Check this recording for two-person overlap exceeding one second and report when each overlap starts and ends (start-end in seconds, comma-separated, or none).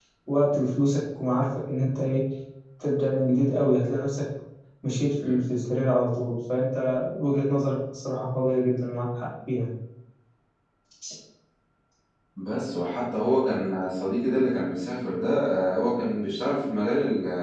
none